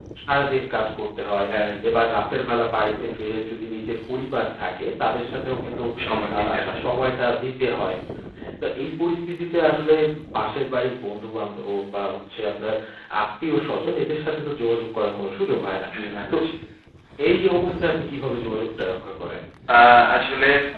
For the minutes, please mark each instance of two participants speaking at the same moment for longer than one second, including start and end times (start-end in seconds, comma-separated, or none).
none